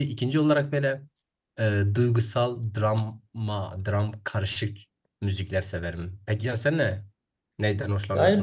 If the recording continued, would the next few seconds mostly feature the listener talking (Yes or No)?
Yes